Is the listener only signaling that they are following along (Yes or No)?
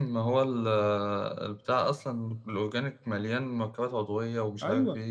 No